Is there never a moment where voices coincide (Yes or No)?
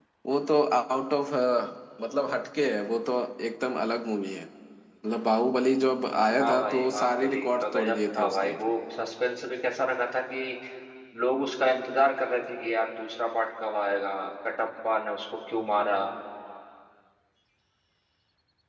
No